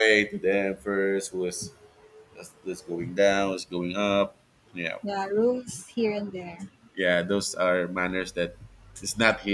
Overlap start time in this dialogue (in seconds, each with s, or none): none